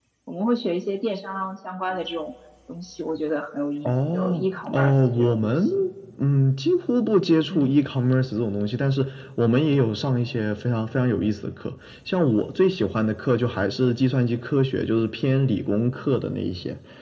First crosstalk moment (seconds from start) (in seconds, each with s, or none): 3.9 s